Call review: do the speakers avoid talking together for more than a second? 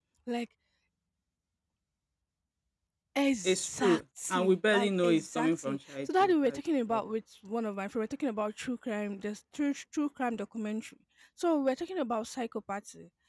No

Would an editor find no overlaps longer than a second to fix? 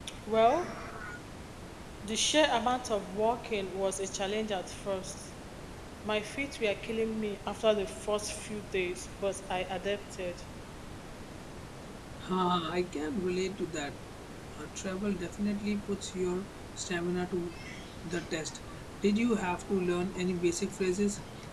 Yes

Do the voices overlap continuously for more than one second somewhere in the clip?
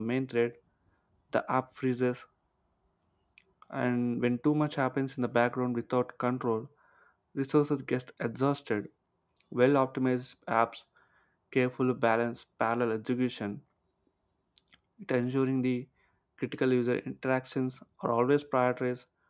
No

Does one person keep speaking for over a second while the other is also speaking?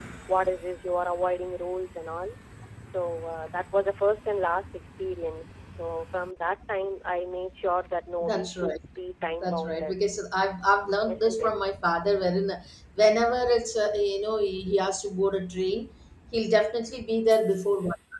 No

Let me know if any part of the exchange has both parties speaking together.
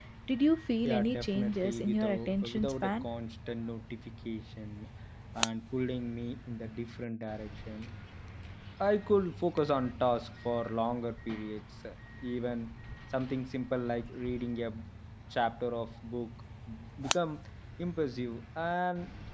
Yes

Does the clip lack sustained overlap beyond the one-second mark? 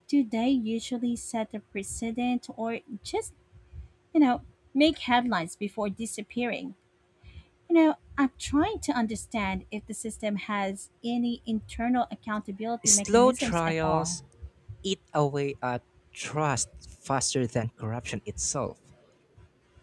No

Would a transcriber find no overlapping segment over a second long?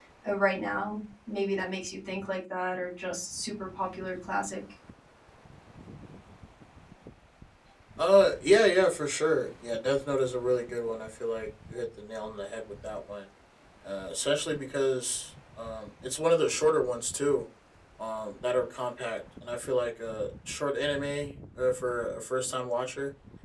Yes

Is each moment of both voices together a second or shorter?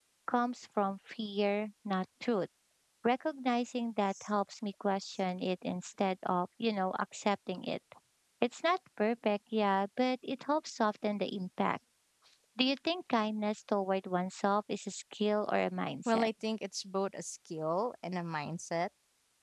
Yes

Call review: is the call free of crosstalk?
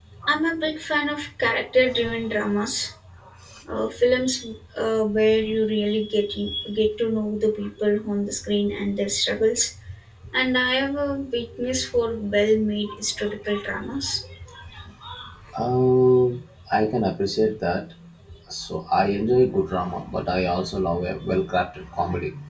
Yes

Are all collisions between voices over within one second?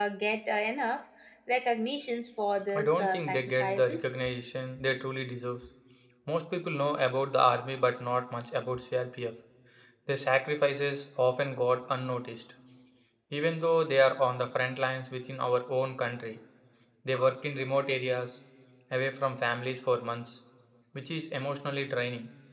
No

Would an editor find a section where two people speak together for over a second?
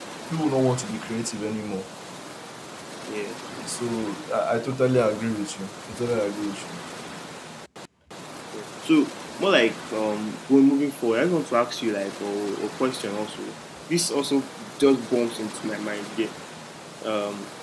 No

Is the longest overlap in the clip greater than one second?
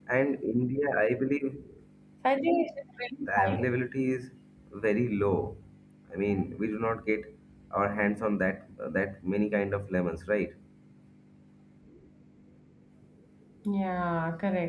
No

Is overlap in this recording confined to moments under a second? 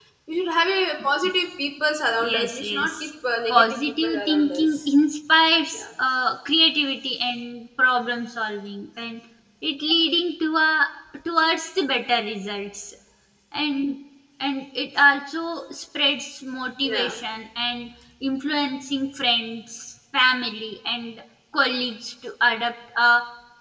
No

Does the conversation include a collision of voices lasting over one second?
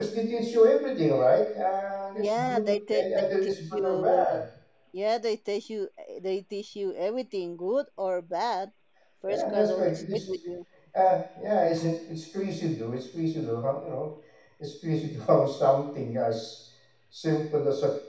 Yes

